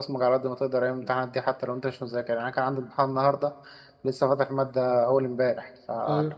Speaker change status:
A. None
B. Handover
A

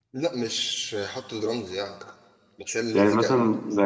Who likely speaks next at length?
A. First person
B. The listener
B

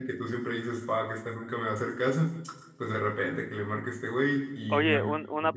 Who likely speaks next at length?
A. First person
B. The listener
B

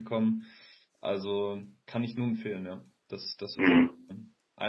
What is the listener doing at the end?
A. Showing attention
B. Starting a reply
B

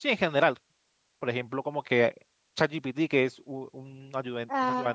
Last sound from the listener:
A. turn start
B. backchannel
A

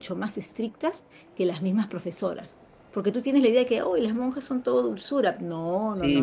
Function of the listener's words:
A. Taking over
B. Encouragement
A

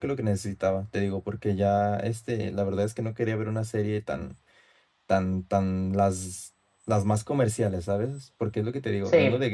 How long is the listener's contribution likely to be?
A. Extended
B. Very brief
B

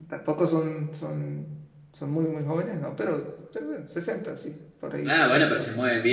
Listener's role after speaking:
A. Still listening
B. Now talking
B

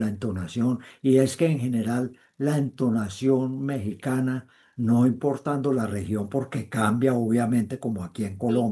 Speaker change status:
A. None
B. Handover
A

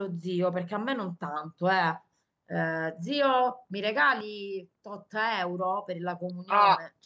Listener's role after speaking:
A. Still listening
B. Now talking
B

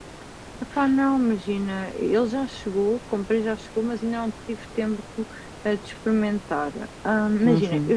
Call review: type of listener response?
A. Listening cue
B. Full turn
A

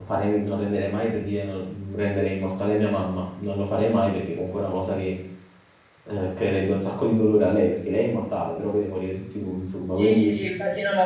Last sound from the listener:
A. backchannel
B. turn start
B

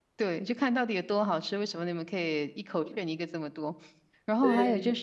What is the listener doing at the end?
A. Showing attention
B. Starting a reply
A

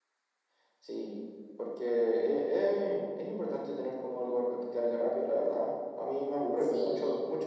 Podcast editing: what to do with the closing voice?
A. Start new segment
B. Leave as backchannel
B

